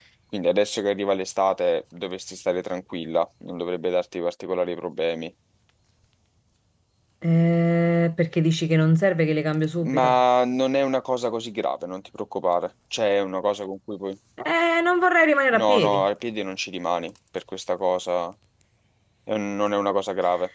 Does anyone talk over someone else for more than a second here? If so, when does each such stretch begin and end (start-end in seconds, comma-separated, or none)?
none